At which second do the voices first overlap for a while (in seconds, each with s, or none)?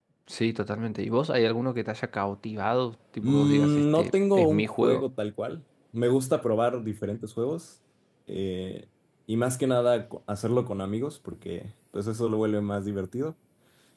3.2 s